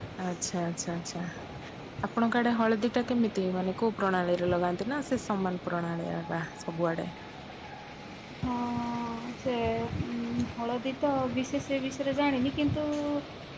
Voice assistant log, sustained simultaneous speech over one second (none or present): none